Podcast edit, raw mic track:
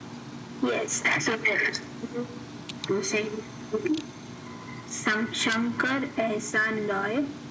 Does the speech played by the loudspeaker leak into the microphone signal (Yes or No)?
Yes